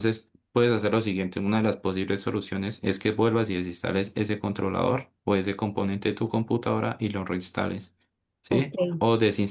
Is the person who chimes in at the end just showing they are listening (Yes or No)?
Yes